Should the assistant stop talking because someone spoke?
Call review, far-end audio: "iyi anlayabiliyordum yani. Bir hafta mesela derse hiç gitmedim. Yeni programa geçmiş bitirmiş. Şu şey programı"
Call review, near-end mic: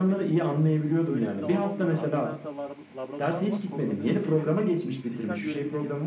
Yes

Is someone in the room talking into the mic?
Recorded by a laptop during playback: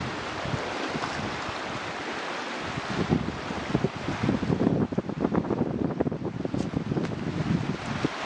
No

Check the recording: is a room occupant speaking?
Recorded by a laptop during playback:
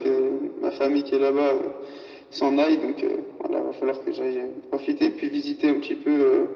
No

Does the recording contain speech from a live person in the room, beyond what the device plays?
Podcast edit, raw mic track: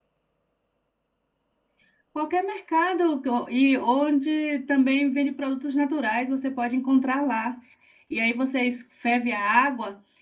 Yes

